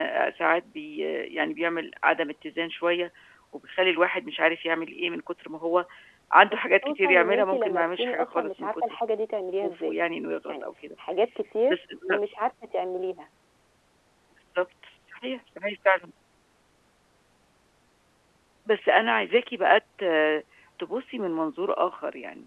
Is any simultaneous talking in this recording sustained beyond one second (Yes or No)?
Yes